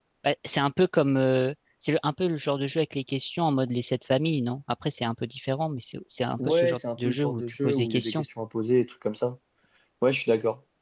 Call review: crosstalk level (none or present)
present